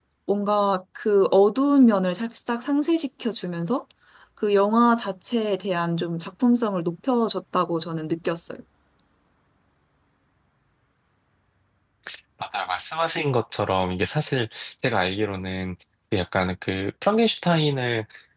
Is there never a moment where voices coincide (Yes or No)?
Yes